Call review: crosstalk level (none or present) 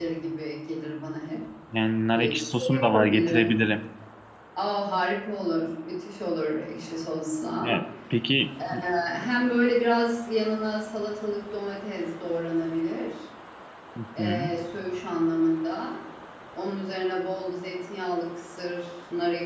present